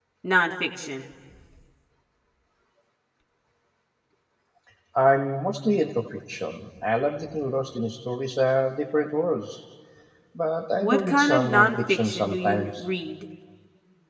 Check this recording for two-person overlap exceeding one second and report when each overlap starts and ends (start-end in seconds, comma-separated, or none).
10.8-12.8